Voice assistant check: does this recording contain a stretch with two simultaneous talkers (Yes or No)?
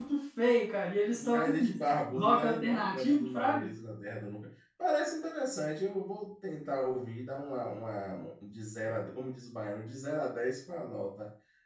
Yes